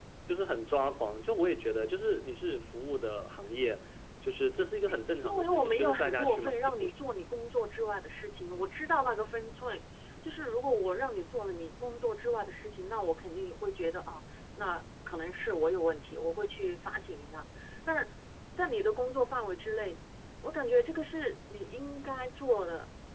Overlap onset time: 5 s

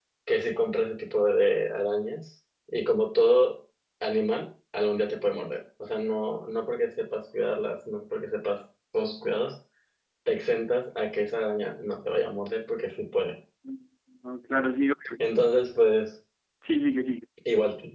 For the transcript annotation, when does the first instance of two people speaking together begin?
none

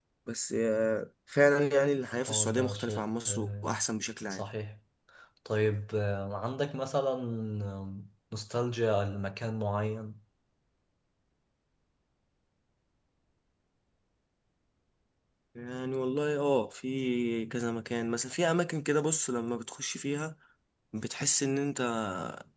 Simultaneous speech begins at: 2 s

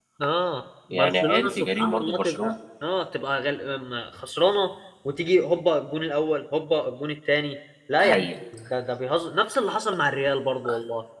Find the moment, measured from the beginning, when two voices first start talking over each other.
1 s

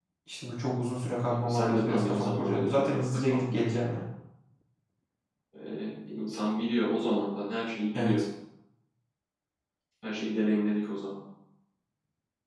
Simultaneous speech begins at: 1 s

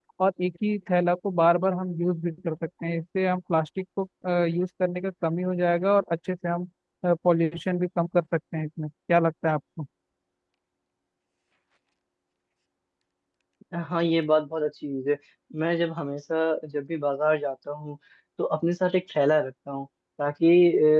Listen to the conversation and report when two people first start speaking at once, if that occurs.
none

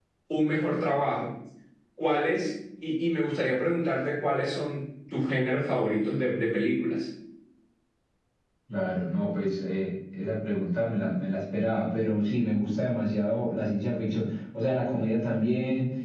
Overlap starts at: none

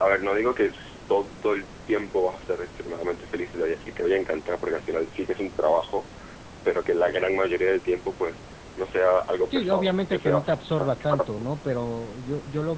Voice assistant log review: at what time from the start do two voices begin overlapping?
10 s

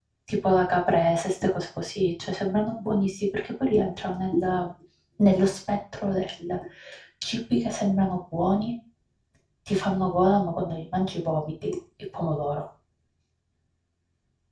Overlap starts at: none

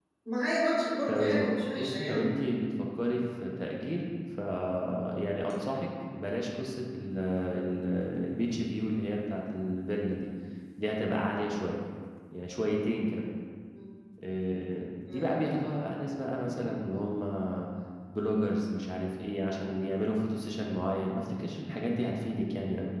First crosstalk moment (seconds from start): 1 s

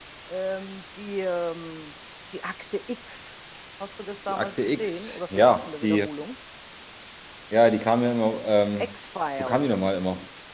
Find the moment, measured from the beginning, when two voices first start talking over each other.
4 s

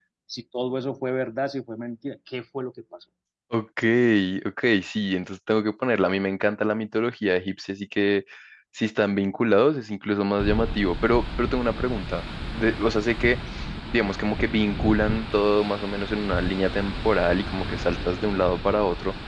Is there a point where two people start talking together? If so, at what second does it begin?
none

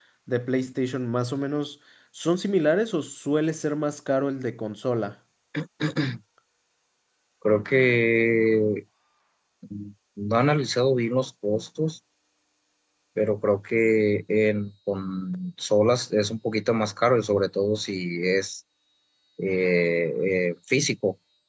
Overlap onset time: none

